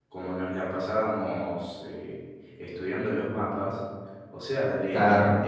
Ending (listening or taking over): listening